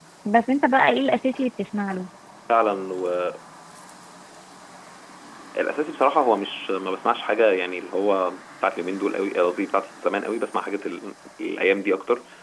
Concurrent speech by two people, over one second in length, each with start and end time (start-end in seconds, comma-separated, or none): none